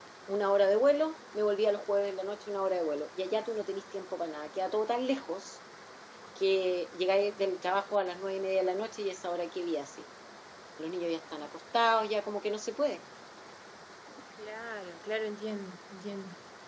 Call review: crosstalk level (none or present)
none